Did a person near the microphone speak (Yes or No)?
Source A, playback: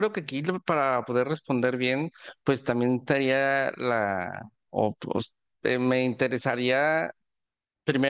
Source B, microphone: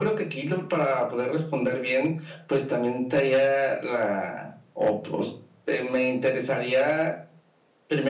No